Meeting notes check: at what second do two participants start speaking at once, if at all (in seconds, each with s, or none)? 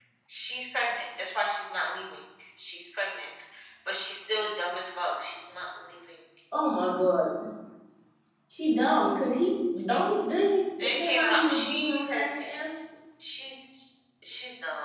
10.8 s